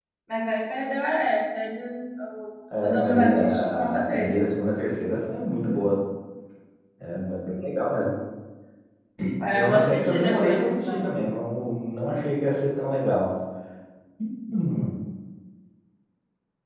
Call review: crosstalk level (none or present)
present